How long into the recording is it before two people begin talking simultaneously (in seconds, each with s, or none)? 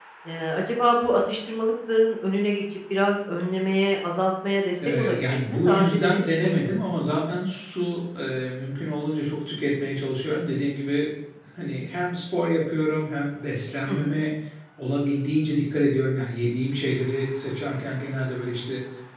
4.8 s